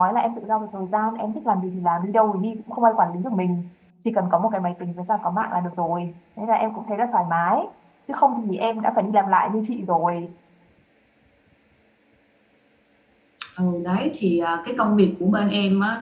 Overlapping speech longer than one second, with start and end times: none

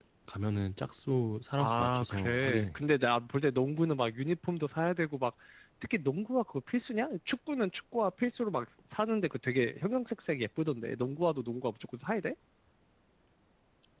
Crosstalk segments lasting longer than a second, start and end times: 1.6-2.8

